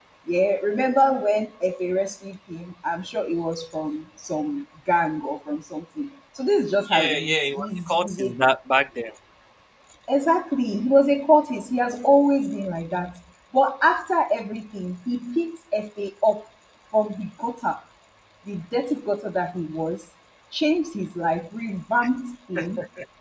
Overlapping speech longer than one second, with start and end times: 7.0-8.3

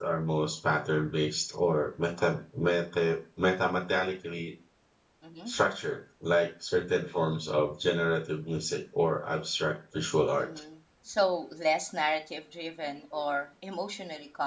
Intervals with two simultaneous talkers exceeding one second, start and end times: none

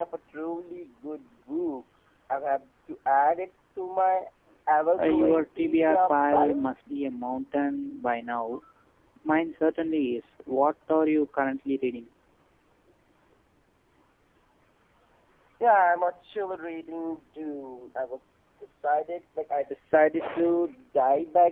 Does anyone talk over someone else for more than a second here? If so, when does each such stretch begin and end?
5.0-6.6

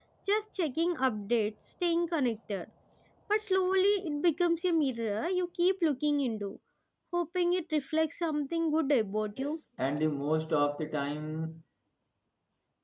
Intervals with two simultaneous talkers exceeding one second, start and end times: none

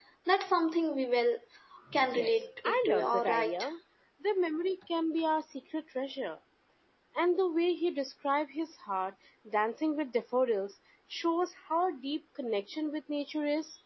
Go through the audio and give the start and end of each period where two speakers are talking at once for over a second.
2.2-3.6

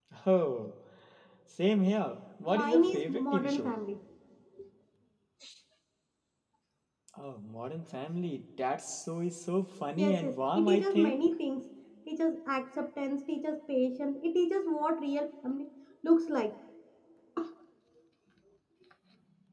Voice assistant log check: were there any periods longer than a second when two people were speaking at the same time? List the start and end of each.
2.5-3.8, 10.0-11.2

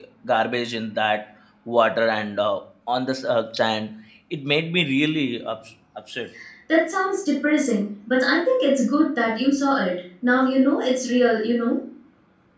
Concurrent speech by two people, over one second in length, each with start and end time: none

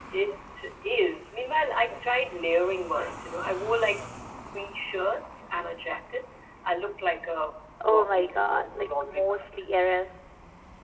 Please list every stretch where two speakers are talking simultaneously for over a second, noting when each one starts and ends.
7.8-9.6

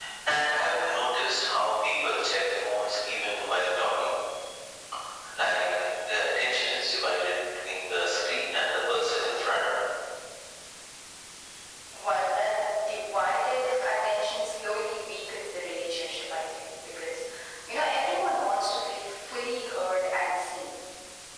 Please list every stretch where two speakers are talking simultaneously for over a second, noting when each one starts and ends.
none

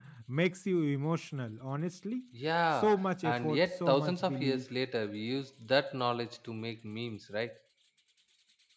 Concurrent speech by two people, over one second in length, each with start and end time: 2.8-4.6

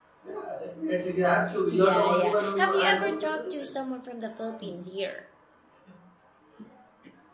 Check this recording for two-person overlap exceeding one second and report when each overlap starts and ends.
1.7-3.6

